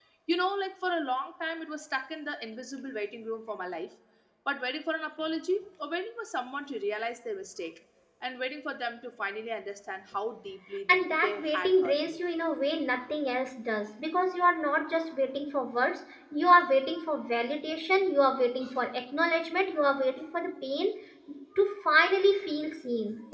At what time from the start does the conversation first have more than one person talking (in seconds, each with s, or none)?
10.9 s